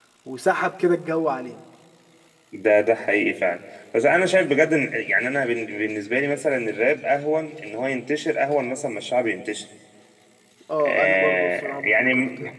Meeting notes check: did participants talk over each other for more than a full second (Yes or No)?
Yes